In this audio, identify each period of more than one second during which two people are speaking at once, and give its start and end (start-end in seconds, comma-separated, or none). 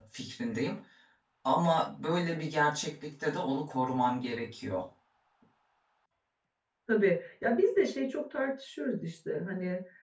none